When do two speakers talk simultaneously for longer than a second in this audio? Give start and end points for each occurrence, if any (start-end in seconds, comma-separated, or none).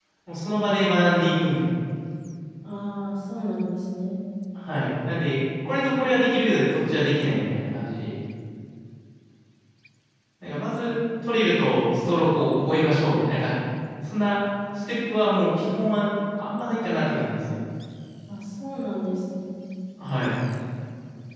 none